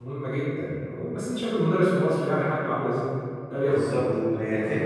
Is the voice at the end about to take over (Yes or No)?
Yes